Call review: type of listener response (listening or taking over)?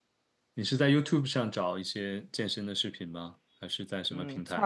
taking over